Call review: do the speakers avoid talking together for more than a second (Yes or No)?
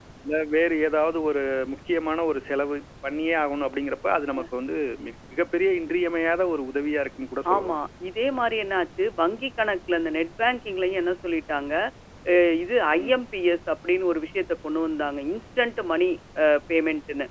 Yes